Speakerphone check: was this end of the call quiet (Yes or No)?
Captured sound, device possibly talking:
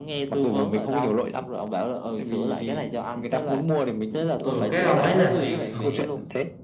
No